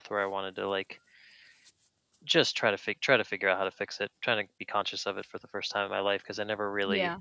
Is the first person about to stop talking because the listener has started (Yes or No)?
No